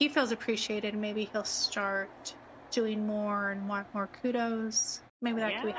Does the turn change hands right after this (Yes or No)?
Yes